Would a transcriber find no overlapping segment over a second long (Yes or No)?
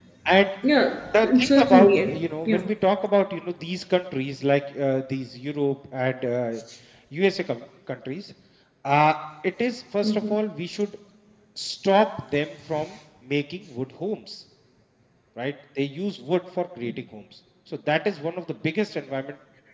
No